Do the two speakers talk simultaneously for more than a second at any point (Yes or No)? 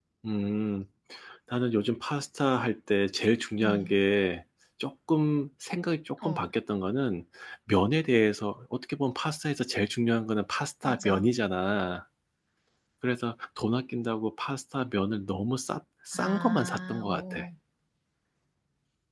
Yes